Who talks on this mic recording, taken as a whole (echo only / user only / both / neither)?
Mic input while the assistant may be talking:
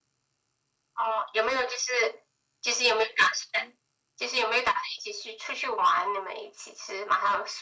echo only